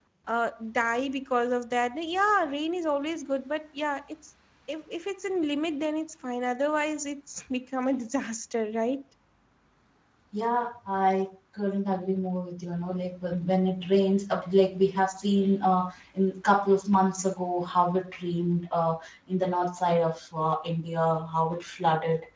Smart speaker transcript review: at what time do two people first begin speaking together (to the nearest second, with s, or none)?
none